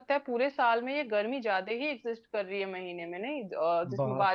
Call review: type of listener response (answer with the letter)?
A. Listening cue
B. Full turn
A